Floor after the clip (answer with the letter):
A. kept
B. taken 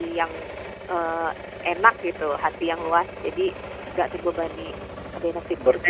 B